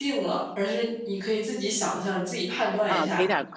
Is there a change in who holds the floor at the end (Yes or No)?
Yes